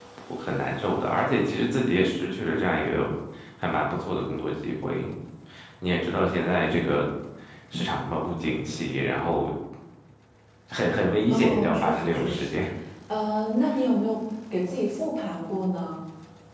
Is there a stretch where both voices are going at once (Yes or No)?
Yes